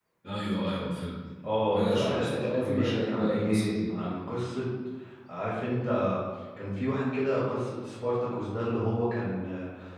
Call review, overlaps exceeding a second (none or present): present